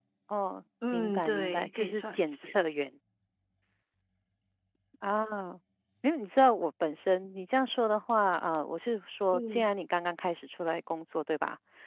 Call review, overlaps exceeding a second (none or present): present